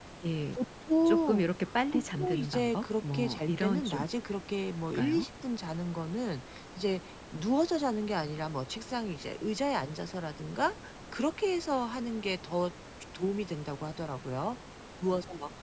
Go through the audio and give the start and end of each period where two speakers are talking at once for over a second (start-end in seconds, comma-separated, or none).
1.9-4.0